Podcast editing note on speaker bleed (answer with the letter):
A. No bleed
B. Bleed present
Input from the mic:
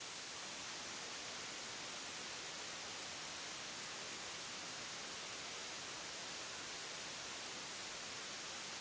A